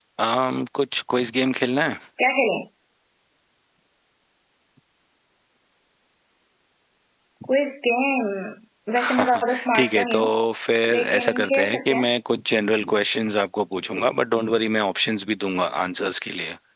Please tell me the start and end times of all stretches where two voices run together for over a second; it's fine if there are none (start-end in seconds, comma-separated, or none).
9.0-10.2, 10.9-12.1